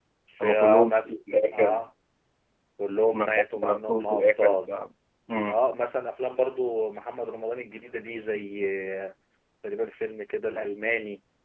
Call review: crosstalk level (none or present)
present